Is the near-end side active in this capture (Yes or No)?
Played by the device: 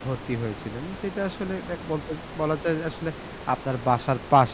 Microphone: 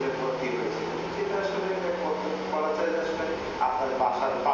No